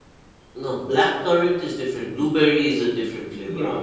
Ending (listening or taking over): taking over